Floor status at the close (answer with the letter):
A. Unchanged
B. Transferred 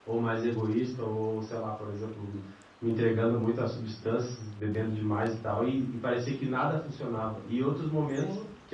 A